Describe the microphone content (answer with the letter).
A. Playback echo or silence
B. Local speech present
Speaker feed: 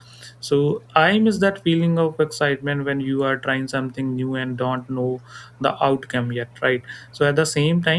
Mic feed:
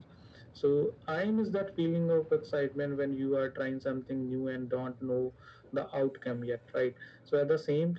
A